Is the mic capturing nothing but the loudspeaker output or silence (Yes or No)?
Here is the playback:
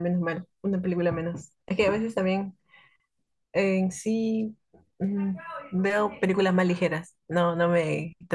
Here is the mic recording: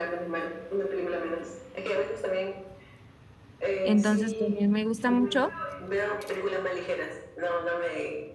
No